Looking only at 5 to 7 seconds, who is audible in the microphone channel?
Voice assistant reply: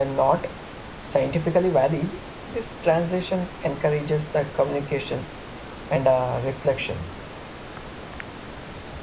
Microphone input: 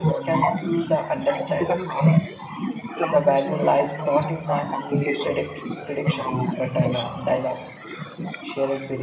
both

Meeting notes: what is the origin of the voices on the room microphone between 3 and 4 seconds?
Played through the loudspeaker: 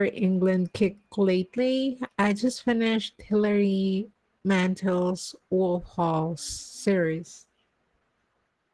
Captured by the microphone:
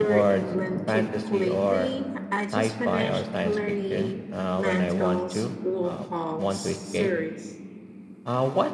both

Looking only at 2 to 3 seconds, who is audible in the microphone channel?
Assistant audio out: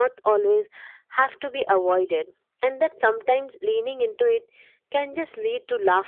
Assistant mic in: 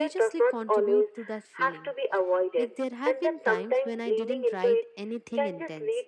both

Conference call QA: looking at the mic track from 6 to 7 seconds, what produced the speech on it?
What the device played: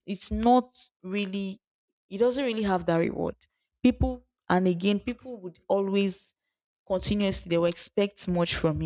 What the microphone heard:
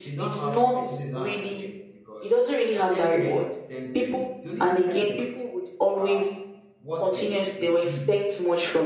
both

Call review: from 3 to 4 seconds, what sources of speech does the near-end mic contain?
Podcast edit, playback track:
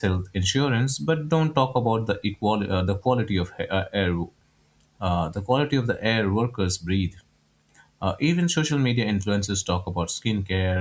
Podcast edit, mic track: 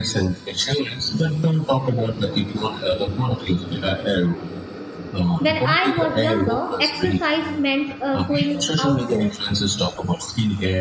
echo only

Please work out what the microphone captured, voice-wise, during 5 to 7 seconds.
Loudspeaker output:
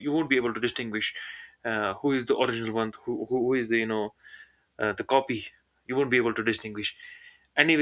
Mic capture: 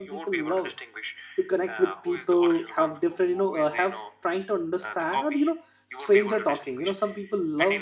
both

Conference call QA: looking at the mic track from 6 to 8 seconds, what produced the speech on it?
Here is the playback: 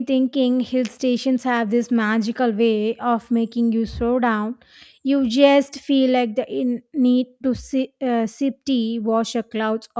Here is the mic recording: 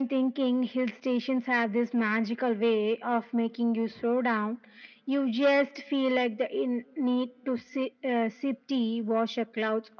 echo only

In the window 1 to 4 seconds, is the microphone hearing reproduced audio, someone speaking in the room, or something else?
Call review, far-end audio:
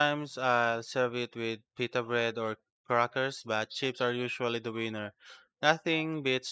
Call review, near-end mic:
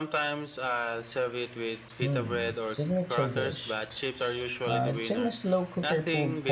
both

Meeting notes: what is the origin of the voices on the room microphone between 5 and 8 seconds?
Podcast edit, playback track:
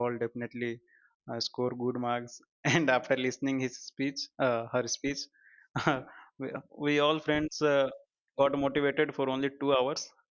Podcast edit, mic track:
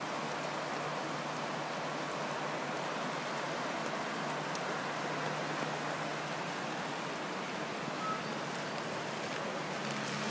neither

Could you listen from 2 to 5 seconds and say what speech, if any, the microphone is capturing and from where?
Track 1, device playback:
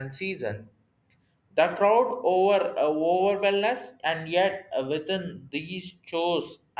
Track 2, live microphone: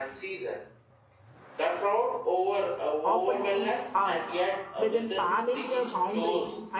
both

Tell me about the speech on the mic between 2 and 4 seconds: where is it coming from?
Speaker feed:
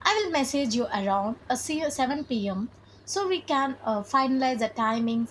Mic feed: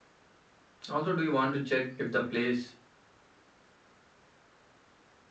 user only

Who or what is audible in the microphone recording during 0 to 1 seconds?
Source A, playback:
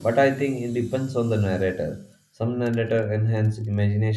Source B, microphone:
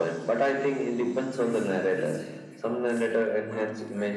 echo only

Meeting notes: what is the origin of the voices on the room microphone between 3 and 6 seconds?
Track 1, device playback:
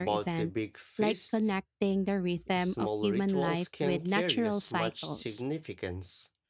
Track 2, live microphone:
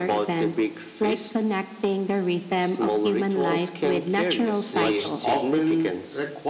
both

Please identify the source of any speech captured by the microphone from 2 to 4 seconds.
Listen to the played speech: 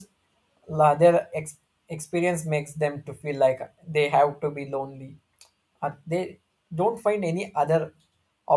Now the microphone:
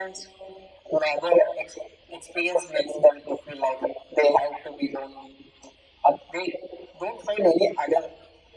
echo only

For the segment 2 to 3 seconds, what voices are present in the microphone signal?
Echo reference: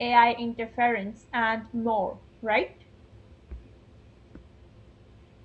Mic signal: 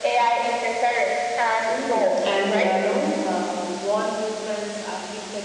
both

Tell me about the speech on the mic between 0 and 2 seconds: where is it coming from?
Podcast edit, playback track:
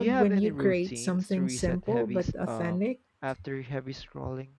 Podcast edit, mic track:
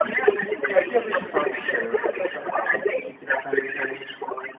both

